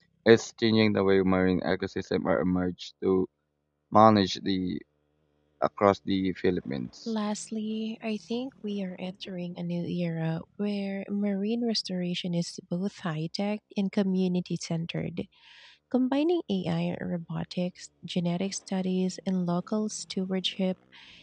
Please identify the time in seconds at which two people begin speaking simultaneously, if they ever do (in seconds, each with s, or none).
none